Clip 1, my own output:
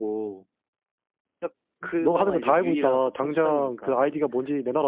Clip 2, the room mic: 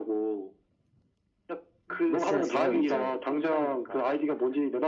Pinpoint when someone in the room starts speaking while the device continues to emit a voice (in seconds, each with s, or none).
2.1 s